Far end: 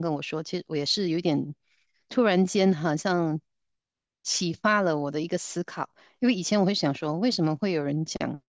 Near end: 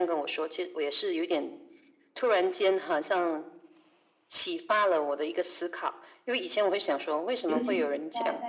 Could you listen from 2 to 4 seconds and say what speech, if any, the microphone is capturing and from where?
echo only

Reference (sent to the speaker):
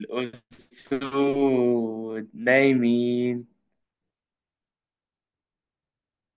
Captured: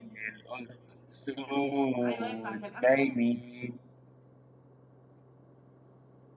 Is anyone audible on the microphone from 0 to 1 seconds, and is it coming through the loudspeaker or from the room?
echo only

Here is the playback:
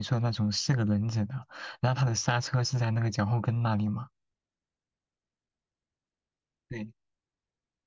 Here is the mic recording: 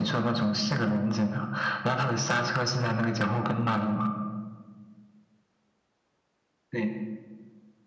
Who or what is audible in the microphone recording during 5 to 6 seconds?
neither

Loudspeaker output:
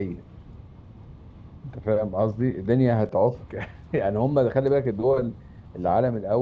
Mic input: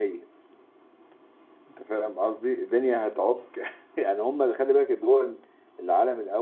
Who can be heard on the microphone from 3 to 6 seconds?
echo only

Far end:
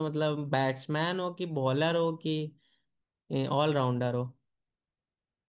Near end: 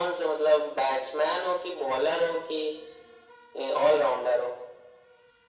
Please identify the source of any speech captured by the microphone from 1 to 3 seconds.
echo only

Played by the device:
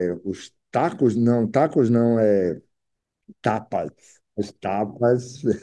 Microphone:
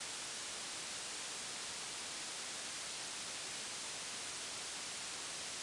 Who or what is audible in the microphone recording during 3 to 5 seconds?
neither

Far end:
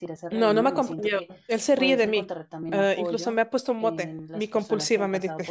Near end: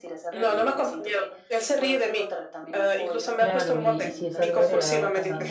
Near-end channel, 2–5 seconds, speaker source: both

